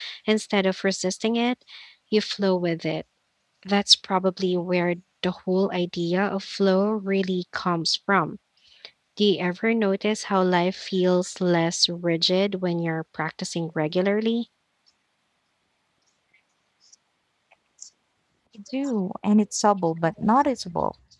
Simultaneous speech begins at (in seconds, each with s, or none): none